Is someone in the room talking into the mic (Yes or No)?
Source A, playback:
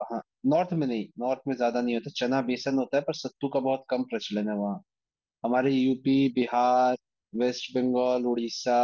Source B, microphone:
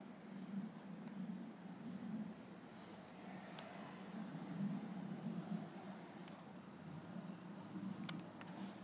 No